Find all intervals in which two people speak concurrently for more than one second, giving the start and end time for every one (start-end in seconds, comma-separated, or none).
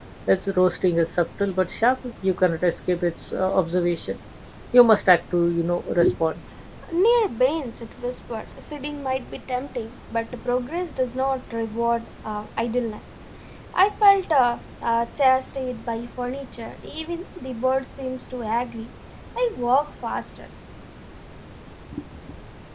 none